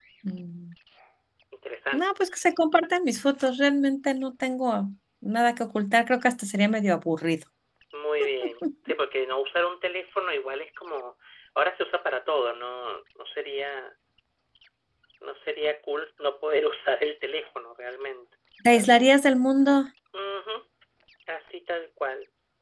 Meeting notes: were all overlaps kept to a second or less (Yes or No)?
Yes